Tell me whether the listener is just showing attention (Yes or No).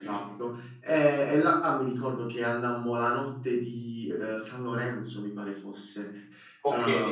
Yes